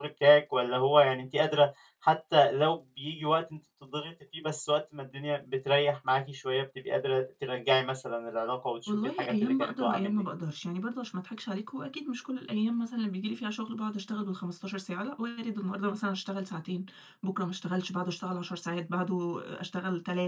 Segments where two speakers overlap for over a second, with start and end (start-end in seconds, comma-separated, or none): 8.9-10.2